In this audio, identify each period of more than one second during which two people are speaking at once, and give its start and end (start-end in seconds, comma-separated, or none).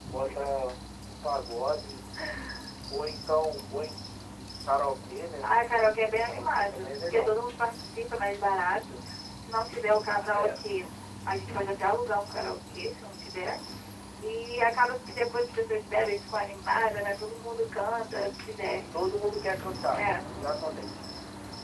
6.0-7.3